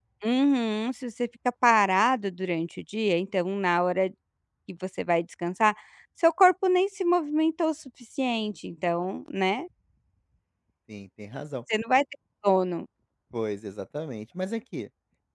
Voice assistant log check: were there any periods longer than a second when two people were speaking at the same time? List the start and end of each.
none

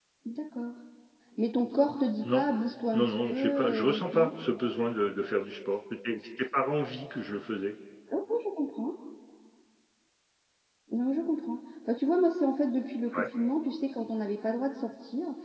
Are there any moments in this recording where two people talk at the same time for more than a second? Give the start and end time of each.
2.9-4.3

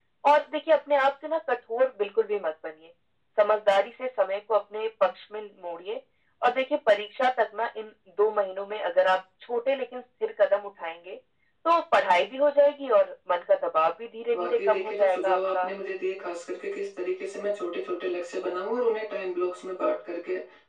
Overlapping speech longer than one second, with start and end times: 14.3-15.7

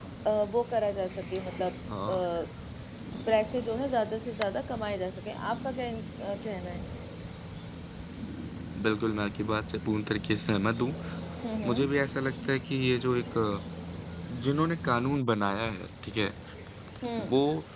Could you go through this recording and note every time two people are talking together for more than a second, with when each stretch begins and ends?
none

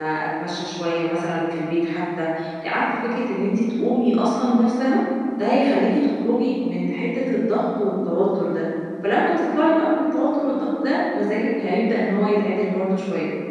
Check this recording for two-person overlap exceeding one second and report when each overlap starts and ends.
none

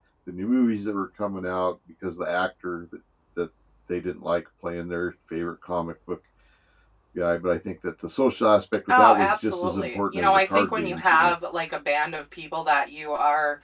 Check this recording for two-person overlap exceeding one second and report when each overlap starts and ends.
8.9-11.3

